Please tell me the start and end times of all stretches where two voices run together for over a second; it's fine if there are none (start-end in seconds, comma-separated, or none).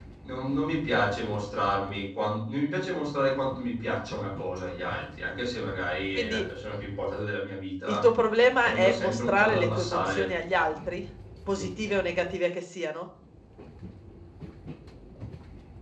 8.6-10.3